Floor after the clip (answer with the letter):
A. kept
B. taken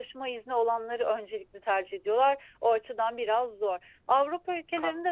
A